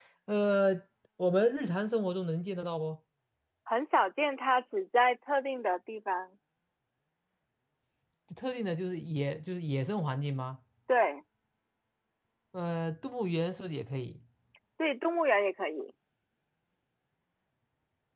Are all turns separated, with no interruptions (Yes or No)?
Yes